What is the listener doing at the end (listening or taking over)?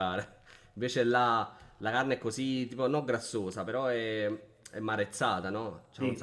listening